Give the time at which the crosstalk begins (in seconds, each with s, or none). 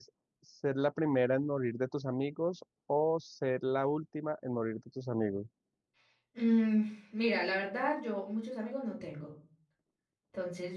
none